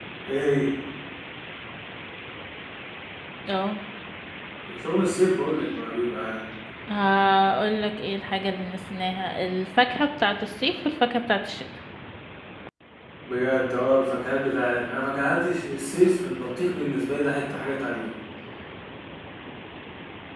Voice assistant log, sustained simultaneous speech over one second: none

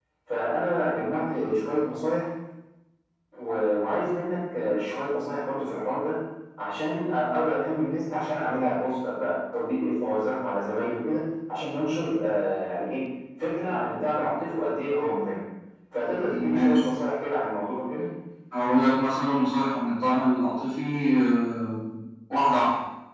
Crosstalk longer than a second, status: none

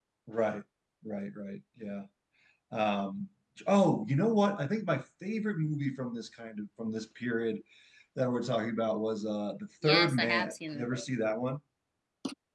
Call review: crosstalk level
present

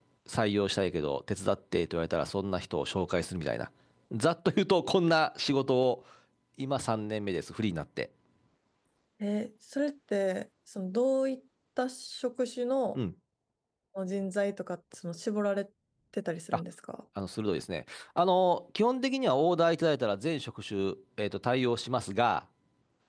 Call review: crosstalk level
none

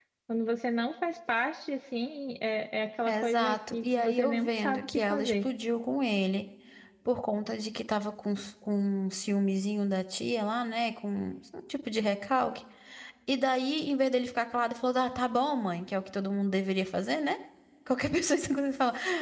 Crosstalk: present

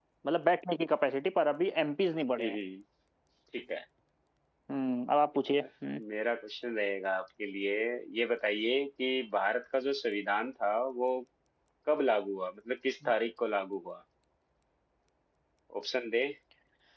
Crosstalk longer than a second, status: none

